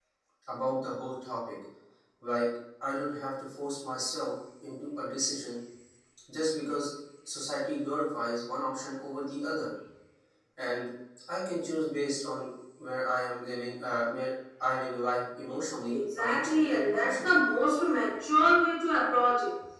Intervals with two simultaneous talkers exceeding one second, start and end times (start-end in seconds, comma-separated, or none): 15.9-17.4